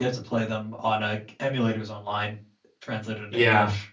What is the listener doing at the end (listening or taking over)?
taking over